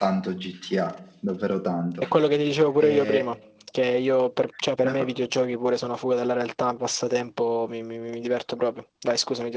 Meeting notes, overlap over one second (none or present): none